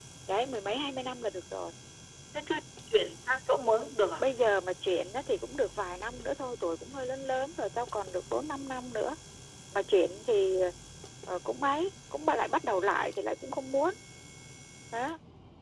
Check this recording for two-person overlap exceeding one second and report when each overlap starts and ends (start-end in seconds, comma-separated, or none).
none